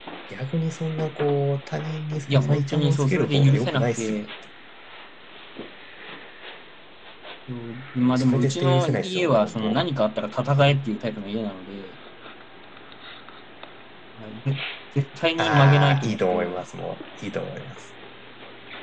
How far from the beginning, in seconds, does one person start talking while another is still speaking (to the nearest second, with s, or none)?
2 s